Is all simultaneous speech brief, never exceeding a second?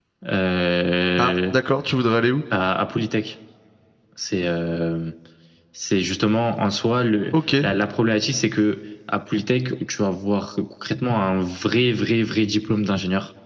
Yes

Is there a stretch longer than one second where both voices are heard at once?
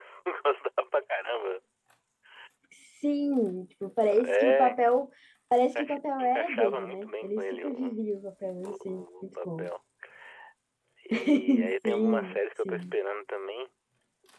Yes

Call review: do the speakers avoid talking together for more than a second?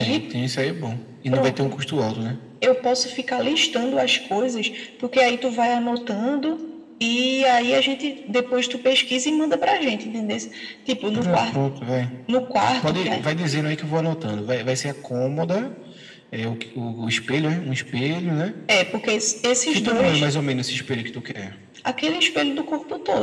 Yes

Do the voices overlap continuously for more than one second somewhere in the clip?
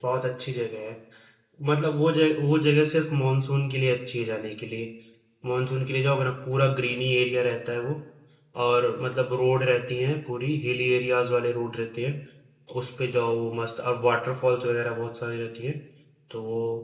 No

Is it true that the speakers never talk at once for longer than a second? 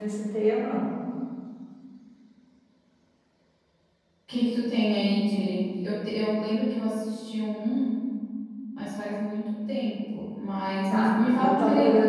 No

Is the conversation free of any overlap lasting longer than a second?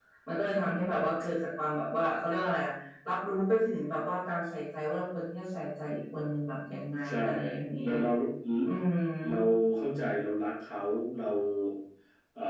Yes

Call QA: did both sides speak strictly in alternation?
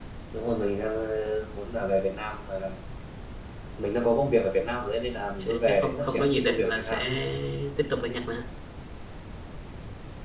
No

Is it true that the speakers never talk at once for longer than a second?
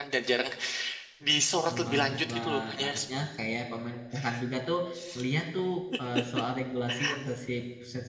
No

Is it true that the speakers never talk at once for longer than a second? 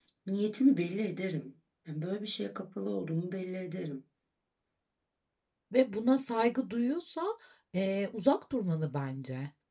Yes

